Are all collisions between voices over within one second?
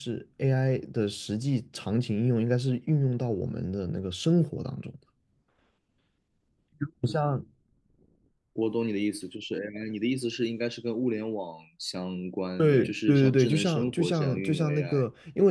No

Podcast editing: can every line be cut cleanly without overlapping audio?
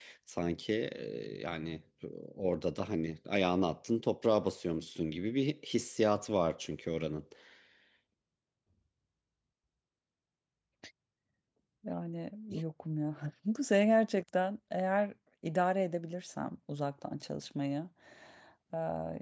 Yes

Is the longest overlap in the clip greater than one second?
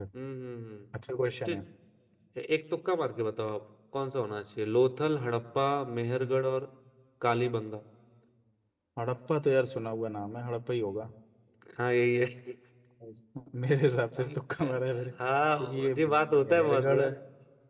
Yes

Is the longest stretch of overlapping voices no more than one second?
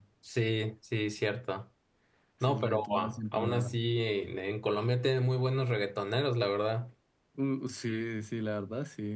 No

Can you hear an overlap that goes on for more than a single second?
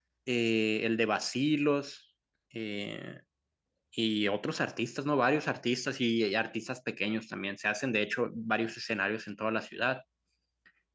No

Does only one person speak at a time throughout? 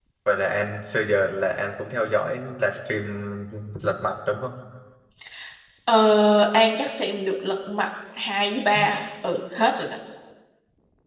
Yes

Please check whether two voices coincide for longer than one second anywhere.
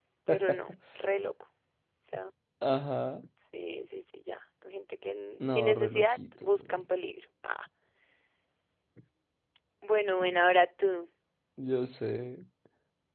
Yes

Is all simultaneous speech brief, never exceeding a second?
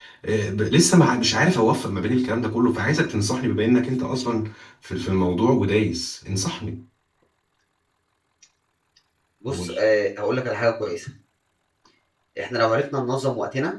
Yes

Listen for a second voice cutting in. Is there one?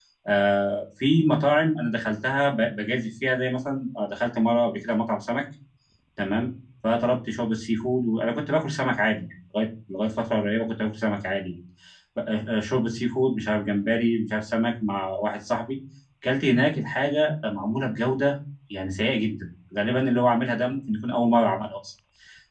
No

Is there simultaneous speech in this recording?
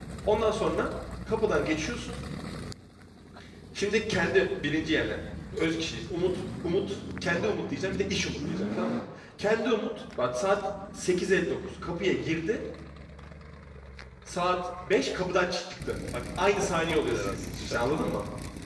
Yes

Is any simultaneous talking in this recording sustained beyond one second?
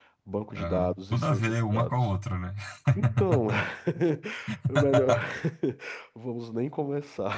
Yes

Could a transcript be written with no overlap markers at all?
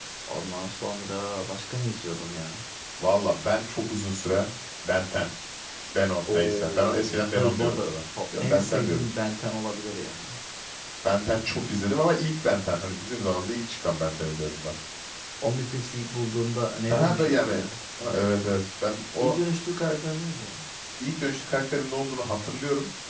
No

